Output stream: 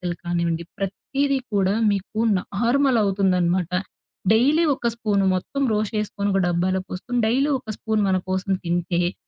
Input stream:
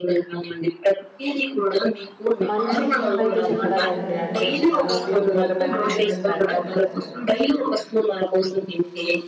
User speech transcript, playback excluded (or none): మంచి టిప్పయితే చెప్పారండి. అంటే, చాలా ఉపయోగకరమైన టిప్ చెప్పారు.